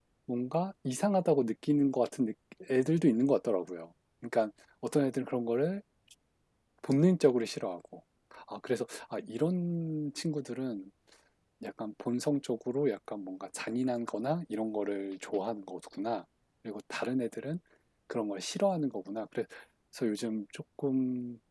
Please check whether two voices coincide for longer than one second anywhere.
No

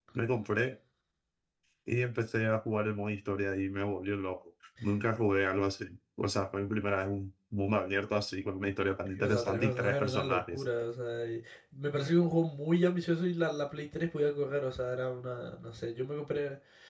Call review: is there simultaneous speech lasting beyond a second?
Yes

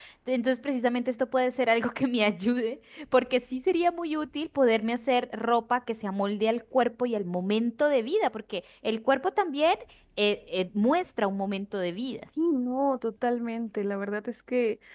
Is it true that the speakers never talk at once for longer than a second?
Yes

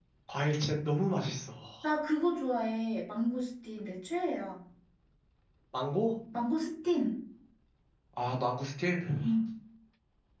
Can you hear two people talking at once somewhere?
No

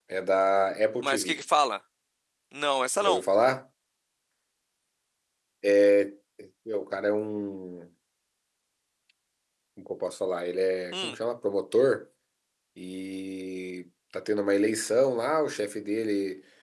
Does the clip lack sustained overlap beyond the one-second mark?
Yes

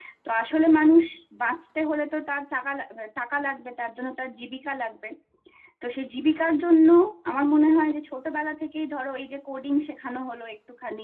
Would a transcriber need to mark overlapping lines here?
No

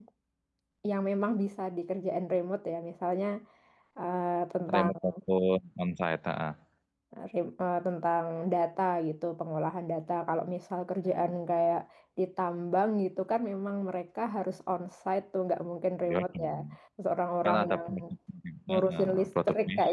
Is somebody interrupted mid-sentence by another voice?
Yes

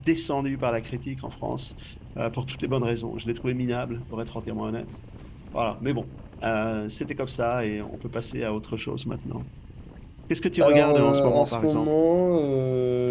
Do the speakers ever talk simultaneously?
Yes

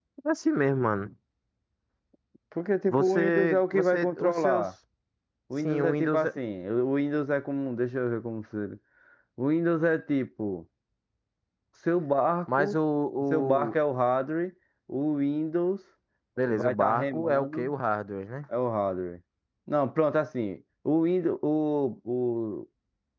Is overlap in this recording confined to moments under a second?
No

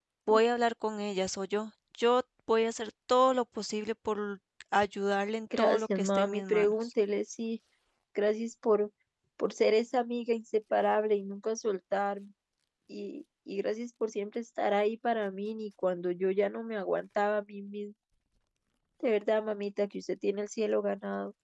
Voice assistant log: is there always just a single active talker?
No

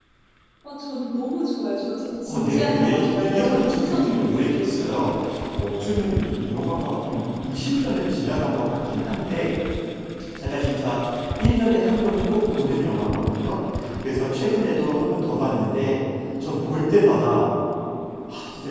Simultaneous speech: Yes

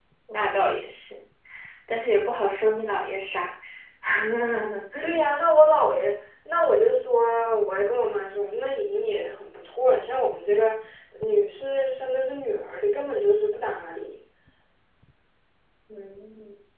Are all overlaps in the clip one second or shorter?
Yes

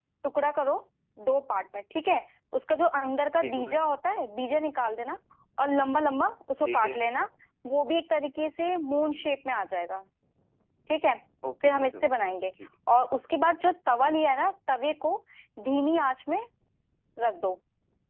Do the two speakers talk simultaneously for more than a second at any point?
No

